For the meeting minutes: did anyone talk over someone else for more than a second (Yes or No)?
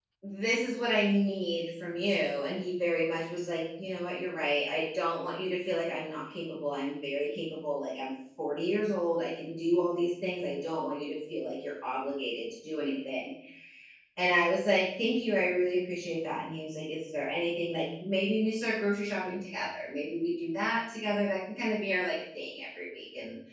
No